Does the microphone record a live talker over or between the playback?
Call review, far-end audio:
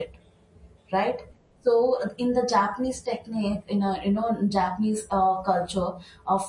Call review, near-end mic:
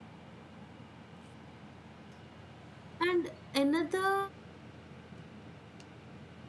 Yes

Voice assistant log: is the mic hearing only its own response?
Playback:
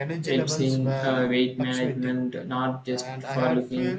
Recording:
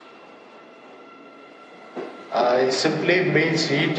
No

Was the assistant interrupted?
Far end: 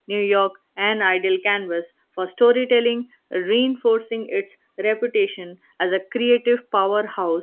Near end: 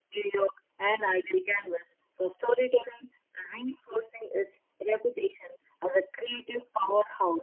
No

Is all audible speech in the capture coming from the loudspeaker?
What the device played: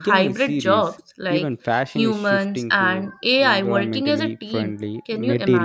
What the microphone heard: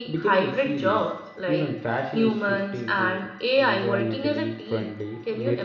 Yes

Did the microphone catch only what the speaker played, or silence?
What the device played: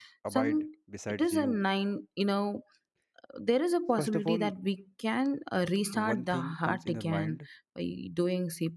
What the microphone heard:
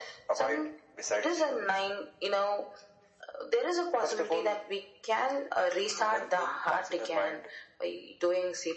Yes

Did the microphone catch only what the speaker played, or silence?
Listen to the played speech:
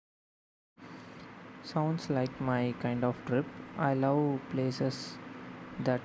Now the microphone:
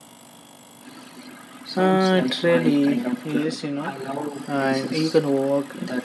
No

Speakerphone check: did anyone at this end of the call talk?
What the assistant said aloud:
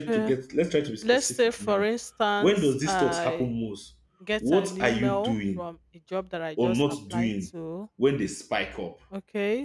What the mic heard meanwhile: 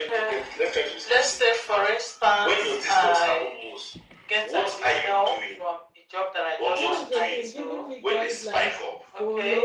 Yes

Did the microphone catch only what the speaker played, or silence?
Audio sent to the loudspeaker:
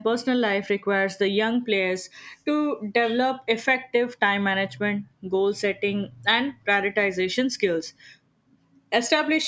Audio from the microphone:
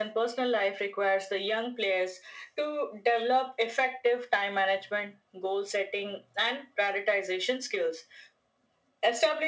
Yes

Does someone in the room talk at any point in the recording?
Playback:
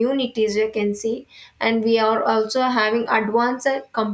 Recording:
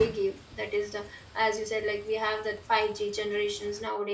Yes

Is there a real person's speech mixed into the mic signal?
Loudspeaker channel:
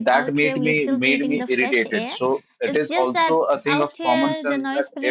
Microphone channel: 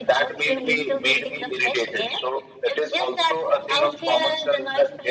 Yes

